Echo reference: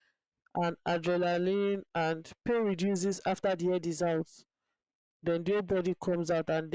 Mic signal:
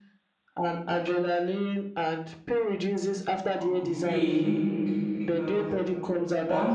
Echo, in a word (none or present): present